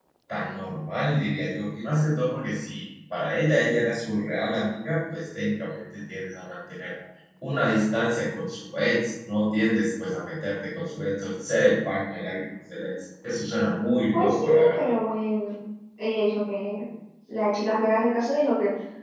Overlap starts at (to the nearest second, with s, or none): 14 s